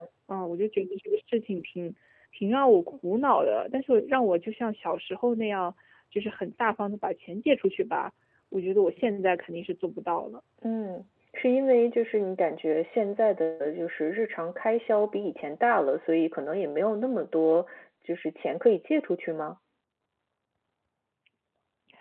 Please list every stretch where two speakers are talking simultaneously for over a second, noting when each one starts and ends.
none

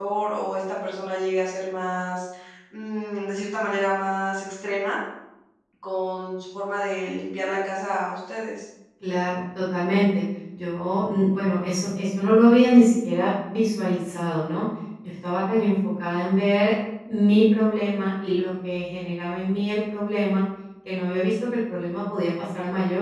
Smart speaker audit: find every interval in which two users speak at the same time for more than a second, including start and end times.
none

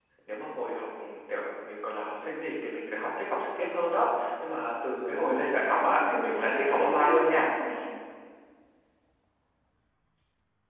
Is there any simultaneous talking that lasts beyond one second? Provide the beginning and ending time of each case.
5.1-7.5

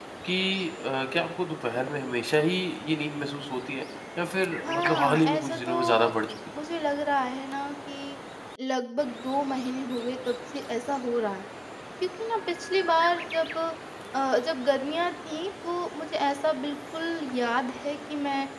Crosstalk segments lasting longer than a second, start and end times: 4.6-6.1

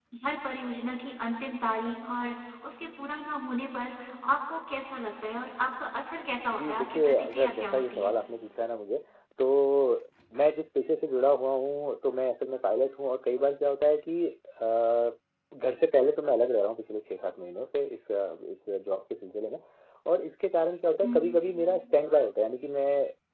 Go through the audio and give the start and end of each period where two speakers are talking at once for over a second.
6.5-8.1

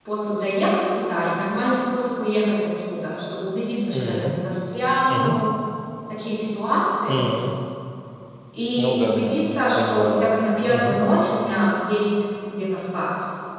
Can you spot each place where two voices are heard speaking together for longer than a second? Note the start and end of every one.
8.8-10.3

